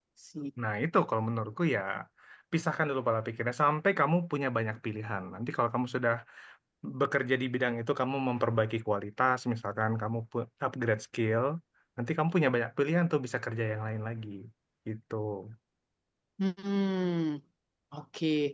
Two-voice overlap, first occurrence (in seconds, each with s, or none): none